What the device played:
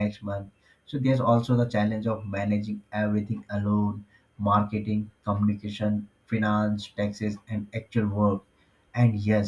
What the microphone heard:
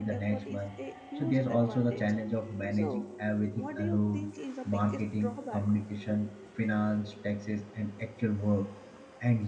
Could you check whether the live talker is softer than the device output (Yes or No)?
Yes